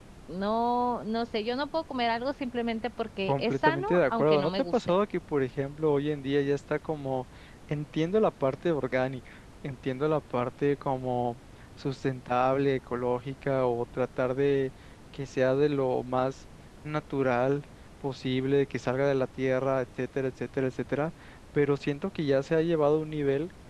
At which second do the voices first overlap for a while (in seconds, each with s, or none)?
3.3 s